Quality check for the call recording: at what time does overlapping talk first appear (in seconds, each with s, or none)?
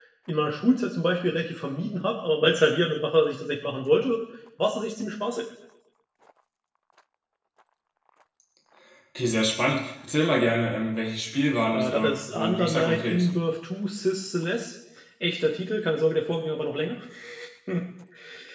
11.7 s